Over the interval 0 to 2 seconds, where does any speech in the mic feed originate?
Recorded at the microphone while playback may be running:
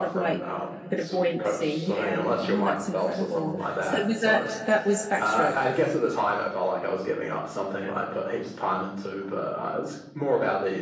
both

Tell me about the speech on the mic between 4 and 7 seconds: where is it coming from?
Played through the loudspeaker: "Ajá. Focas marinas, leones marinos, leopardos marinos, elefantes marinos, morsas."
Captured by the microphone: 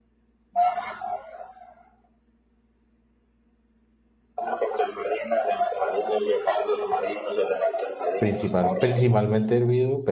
echo only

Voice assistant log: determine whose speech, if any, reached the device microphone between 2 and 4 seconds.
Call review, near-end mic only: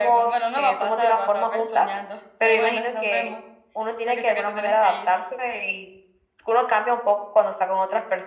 echo only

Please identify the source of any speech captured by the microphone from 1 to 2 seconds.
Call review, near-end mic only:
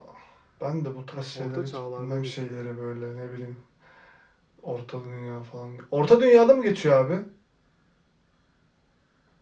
both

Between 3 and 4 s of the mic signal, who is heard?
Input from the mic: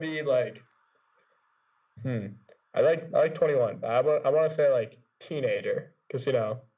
echo only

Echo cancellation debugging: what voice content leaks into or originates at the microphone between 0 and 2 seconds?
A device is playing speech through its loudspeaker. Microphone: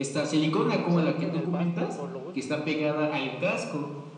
both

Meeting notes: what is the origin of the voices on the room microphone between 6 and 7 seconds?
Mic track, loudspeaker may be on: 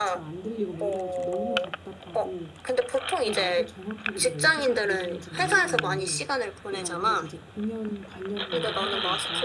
both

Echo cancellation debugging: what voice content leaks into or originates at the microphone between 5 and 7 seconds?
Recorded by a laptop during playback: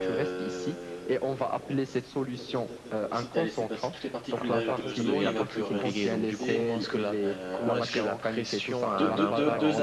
both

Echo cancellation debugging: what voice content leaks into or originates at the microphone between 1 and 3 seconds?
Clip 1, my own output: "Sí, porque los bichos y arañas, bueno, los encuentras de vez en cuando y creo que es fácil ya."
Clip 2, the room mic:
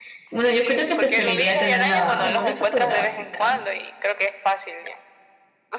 both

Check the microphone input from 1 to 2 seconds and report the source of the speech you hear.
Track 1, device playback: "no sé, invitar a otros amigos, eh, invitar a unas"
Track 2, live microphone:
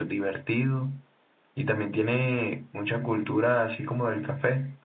user only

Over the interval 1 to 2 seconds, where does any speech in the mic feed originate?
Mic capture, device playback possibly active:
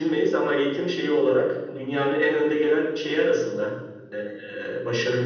echo only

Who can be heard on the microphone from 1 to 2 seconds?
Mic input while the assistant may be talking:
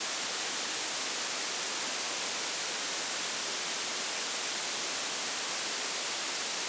neither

